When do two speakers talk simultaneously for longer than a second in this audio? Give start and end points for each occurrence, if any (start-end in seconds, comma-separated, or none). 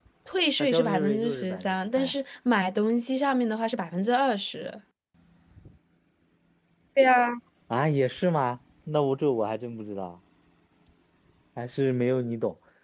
0.6-2.1